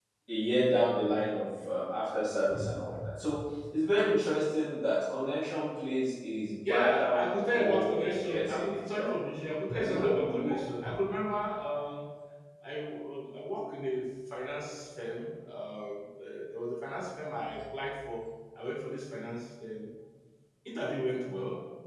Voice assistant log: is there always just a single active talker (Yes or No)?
No